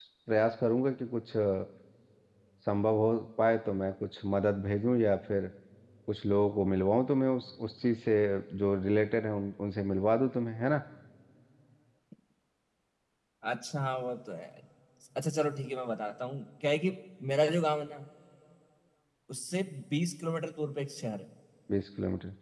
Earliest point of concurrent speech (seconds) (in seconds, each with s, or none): none